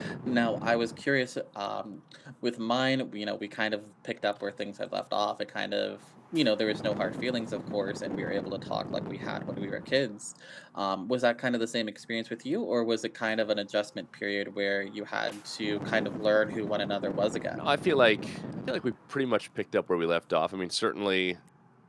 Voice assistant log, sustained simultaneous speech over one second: none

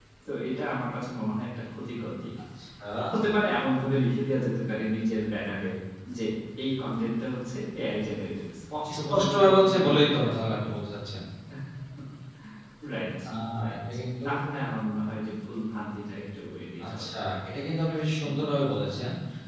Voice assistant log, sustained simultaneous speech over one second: present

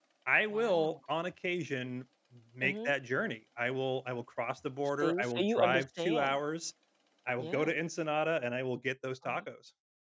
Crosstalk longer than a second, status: present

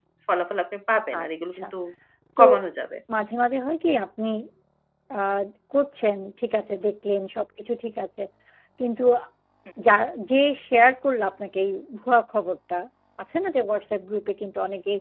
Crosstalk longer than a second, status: none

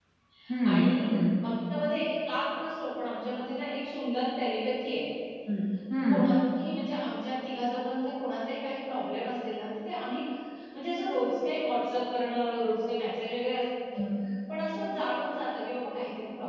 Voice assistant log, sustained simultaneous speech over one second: none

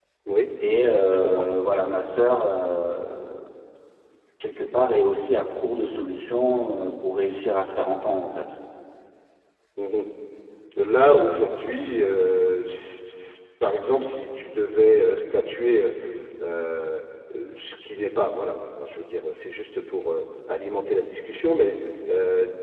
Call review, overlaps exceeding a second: none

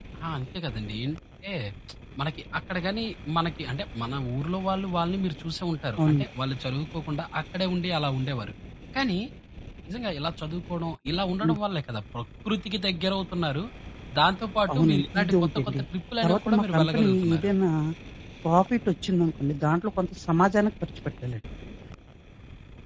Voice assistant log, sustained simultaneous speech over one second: present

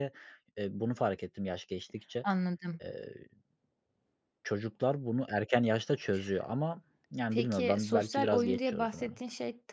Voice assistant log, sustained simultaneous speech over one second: present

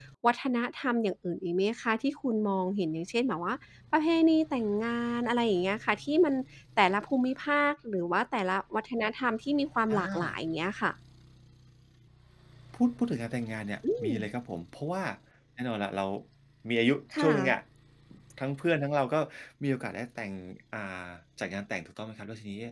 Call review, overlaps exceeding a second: none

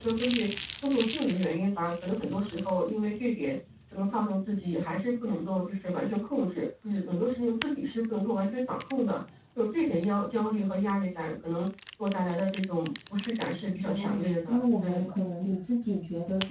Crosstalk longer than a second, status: present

